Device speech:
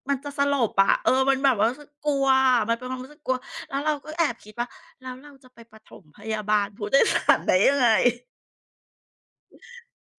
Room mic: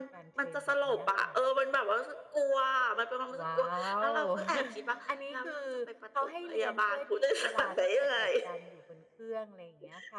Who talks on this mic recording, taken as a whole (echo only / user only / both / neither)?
both